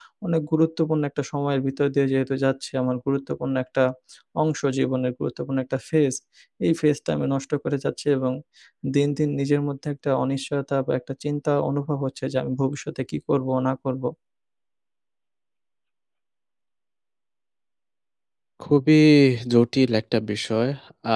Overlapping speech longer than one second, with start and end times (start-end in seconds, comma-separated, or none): none